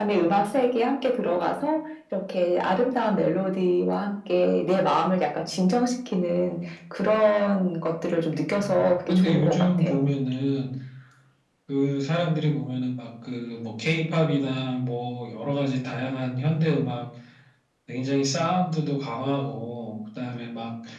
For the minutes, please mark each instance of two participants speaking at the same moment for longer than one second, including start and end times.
8.5-9.9

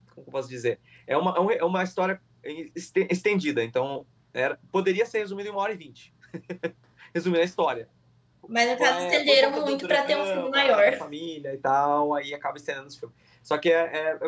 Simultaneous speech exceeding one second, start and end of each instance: 8.8-10.9

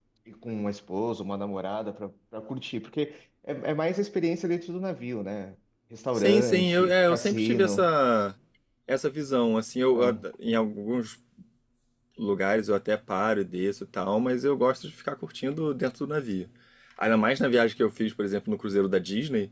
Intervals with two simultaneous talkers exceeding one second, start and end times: 6.2-7.8

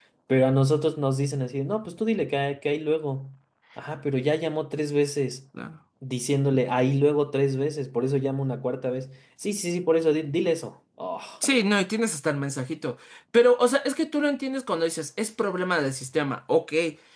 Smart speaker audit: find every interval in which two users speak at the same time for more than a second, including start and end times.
none

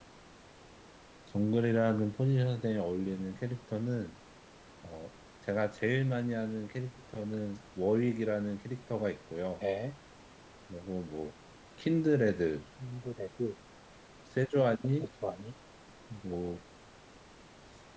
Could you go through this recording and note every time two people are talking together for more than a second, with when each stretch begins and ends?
none

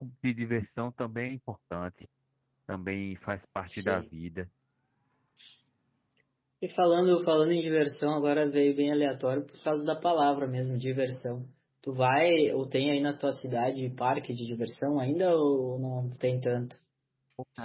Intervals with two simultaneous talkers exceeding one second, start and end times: none

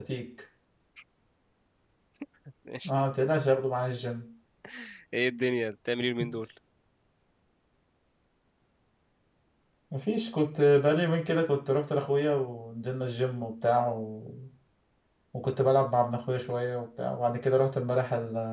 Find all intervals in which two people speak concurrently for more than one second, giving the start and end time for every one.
none

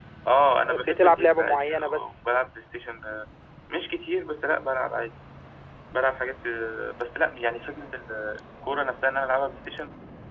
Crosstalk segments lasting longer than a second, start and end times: 0.7-2.1

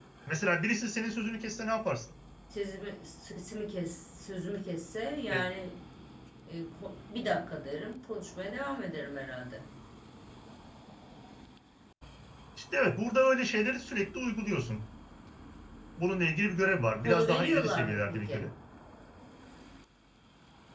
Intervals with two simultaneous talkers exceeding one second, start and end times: 17.0-18.5

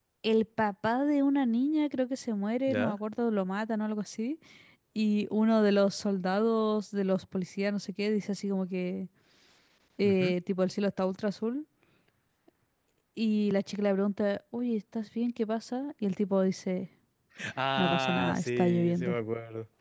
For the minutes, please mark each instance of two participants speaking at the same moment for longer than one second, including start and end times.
17.8-19.1

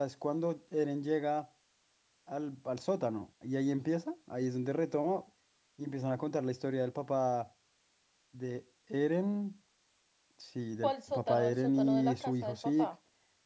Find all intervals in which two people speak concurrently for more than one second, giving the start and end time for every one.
10.8-12.9

